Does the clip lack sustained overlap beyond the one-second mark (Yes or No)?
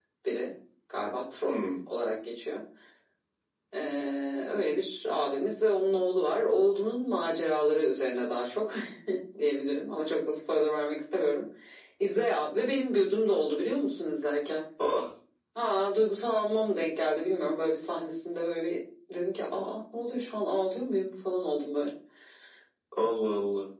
Yes